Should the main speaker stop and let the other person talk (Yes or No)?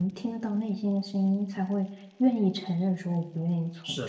Yes